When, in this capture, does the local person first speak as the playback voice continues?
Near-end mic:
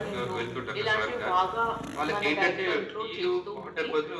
none

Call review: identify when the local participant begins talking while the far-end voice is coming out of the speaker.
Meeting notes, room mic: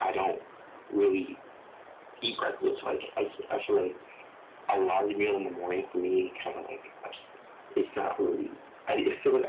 none

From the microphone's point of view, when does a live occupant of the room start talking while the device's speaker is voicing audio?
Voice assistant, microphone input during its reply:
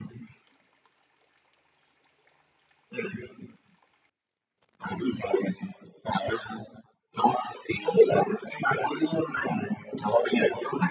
none

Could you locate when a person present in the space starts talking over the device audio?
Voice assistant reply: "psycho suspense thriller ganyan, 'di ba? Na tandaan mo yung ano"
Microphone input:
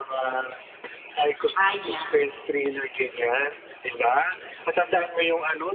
2 s

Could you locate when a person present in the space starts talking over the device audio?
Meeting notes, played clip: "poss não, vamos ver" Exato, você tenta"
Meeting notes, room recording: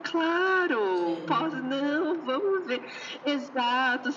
1 s

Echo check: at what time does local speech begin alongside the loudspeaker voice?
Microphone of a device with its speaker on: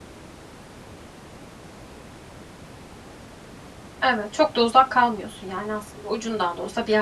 4 s

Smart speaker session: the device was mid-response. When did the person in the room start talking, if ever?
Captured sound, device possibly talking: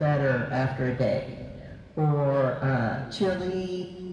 none

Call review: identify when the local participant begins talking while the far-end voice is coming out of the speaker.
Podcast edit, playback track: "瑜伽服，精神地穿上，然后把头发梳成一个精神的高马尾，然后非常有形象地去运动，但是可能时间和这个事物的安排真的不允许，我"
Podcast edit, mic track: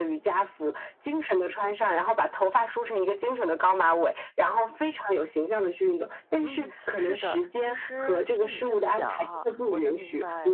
6 s

